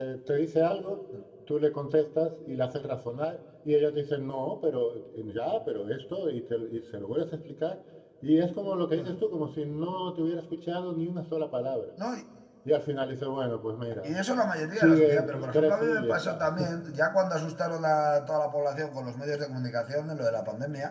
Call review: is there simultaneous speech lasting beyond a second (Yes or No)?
Yes